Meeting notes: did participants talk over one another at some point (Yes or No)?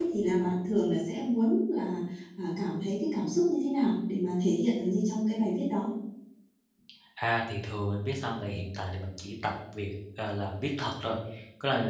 No